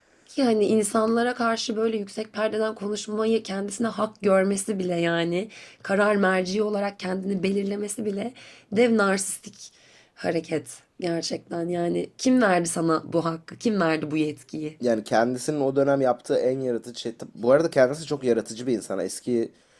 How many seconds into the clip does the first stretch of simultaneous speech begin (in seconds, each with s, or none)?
none